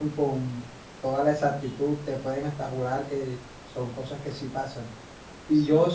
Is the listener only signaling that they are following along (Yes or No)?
Yes